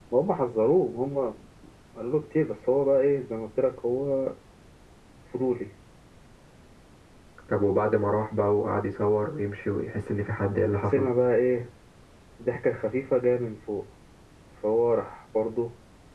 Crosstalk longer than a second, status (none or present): none